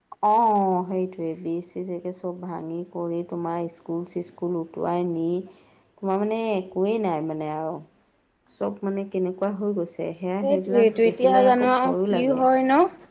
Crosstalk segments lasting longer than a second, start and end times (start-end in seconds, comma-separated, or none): 10.4-12.4